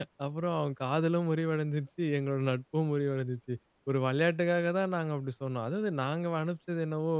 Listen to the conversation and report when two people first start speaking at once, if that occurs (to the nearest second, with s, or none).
none